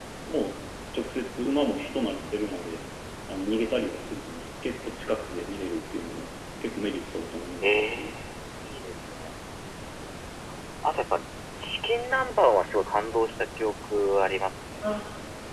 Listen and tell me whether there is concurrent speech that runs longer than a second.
No

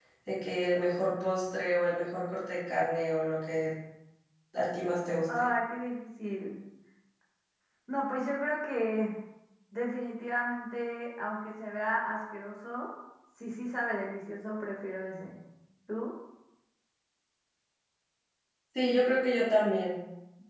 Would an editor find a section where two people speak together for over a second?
No

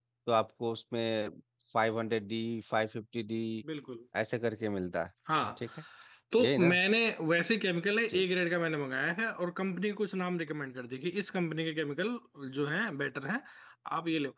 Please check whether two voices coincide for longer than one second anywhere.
No

